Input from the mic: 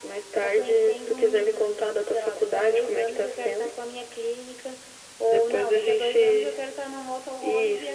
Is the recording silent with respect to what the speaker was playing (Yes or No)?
No